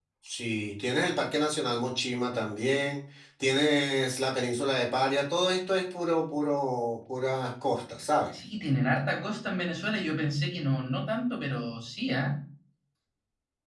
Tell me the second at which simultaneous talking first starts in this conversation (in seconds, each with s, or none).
none